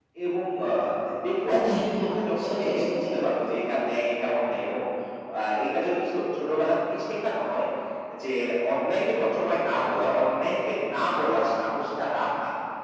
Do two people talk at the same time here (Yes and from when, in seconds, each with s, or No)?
Yes, from 1.4 s